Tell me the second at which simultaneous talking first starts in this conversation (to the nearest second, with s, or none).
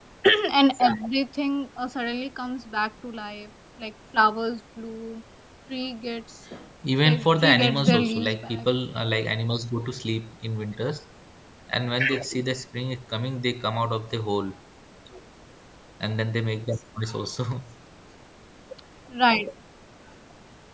7 s